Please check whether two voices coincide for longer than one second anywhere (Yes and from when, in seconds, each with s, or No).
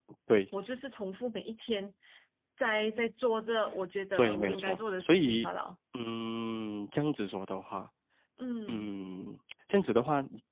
Yes, from 4.2 s